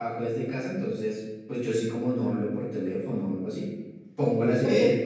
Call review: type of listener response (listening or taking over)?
taking over